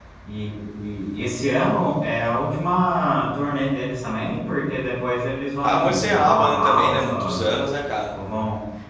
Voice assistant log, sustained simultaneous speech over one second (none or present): present